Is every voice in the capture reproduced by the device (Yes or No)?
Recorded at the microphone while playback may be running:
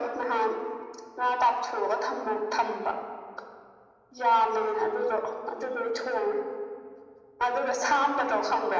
Yes